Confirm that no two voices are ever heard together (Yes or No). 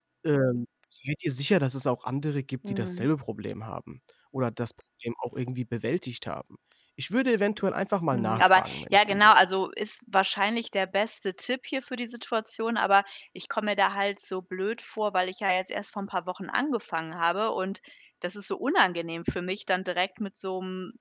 No